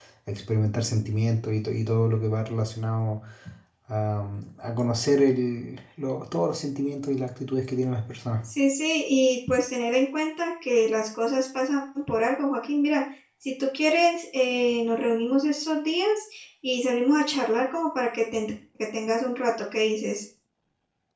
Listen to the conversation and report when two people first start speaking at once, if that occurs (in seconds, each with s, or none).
none